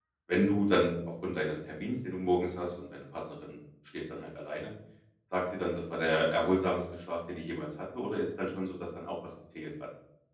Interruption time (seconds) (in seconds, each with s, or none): none